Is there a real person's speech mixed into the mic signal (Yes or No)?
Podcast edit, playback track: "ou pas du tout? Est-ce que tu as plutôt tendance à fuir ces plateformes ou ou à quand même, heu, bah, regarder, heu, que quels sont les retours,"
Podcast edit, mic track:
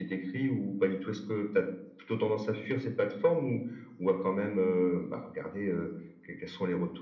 No